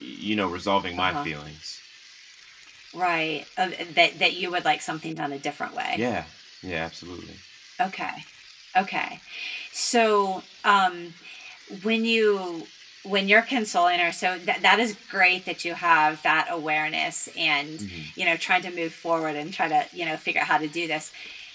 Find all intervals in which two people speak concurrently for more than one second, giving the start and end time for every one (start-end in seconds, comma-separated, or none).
none